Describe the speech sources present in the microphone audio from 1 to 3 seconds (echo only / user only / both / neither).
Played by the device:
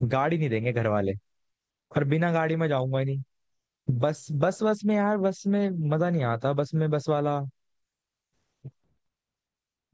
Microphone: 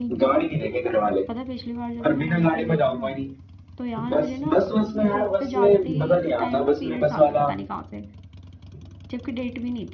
both